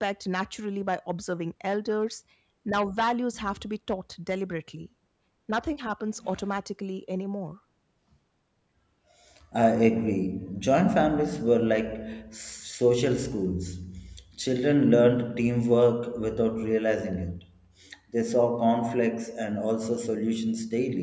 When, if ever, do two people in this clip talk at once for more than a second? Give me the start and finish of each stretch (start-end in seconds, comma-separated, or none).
none